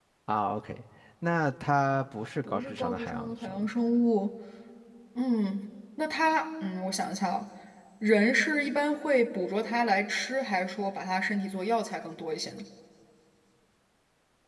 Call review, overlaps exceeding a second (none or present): present